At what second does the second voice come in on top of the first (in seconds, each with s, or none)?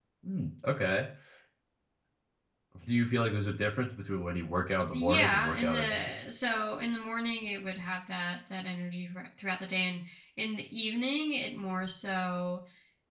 4.9 s